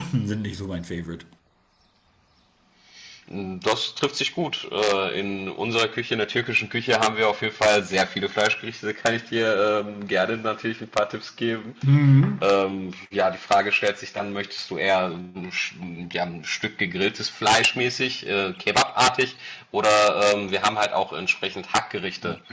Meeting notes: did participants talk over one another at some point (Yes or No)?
No